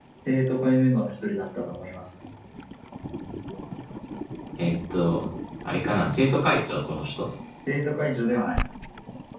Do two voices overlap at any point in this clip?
No

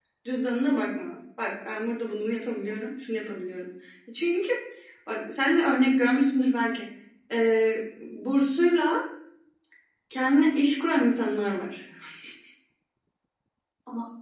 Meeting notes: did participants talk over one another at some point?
No

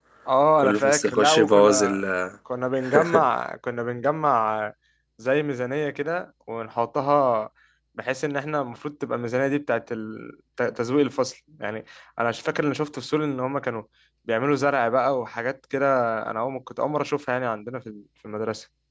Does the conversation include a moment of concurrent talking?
Yes, from 0.6 s

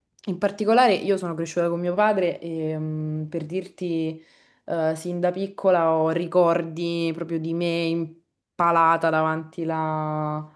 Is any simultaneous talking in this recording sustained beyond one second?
No

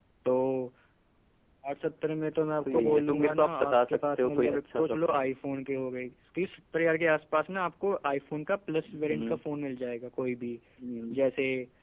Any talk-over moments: Yes, from 2.6 s

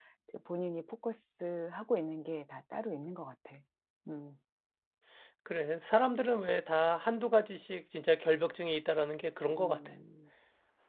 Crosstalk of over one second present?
No

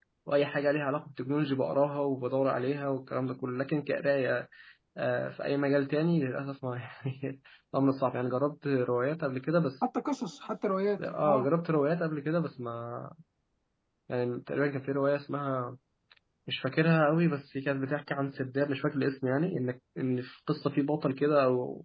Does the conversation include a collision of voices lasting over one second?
No

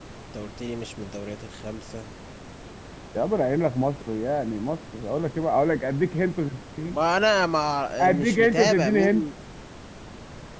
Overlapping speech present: Yes, from 8.0 s

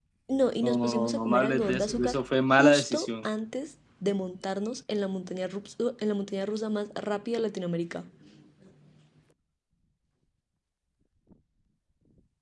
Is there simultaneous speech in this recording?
Yes, from 0.6 s

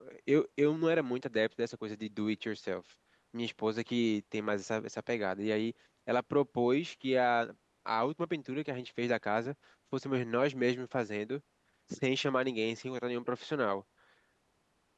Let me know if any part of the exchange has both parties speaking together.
No

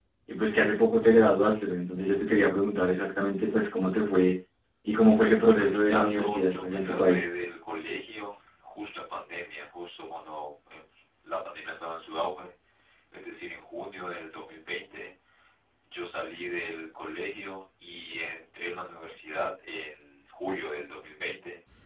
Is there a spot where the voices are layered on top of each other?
Yes, from 5.1 s

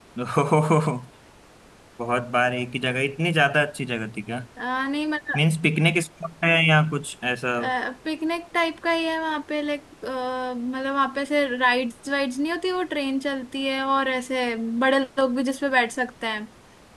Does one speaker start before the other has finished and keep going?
No

